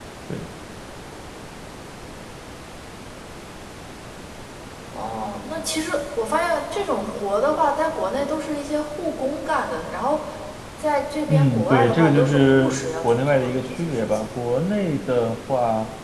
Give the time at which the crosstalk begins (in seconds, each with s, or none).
11.3 s